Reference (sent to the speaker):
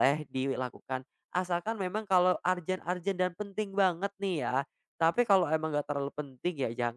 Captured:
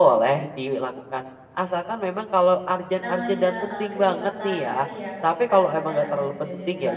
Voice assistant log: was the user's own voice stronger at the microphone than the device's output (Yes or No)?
No